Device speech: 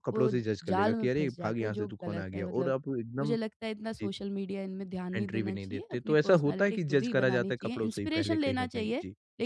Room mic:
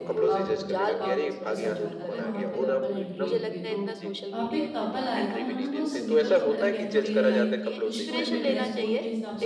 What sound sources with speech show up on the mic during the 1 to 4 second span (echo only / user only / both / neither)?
both